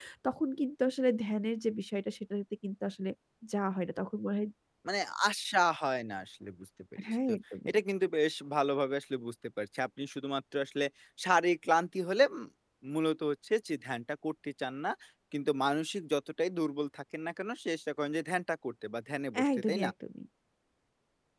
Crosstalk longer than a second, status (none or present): none